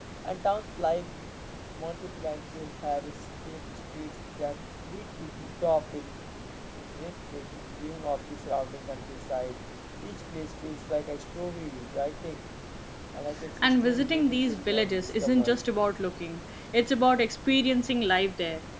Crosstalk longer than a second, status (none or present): present